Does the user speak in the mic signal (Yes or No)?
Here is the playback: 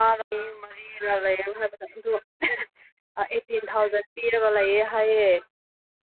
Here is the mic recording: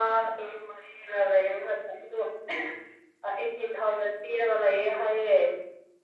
No